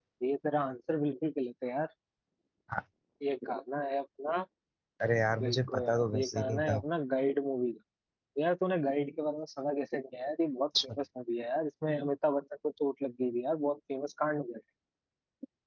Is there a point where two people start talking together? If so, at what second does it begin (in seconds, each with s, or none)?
5.4 s